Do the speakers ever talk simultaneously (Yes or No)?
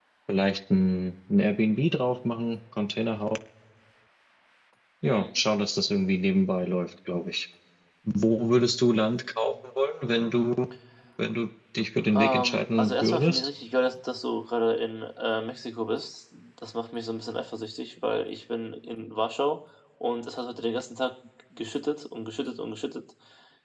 Yes